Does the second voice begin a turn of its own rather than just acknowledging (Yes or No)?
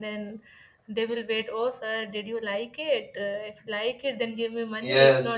Yes